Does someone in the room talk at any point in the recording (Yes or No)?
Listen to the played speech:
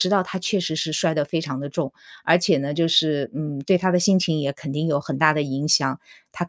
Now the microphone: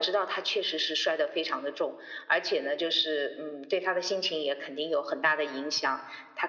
No